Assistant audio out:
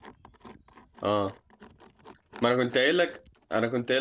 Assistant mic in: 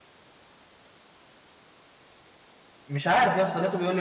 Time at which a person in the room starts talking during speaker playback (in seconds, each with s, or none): 2.9 s